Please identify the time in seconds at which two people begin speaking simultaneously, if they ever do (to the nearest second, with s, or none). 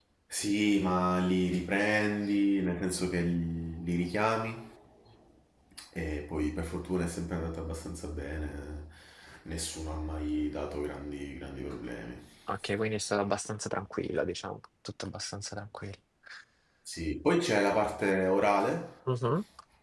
none